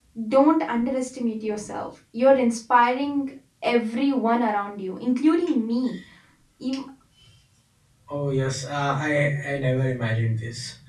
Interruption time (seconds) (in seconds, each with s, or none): none